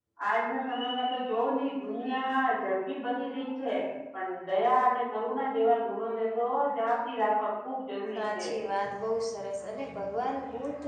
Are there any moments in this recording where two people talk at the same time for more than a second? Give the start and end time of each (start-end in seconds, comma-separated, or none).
none